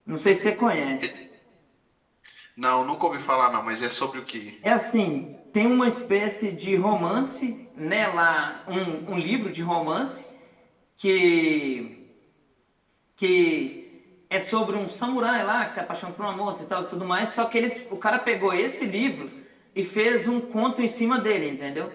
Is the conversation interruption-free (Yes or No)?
Yes